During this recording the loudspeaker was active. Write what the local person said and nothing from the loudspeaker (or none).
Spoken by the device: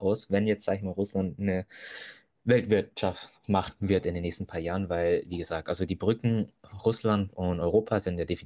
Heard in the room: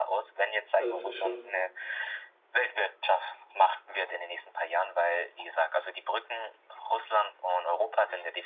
Also es ist schon,